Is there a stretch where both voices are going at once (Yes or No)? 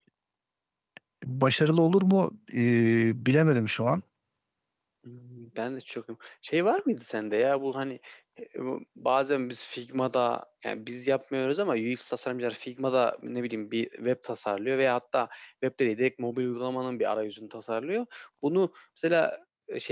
No